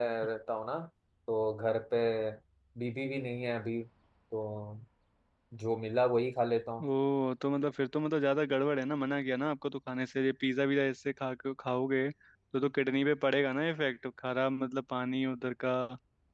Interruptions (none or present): none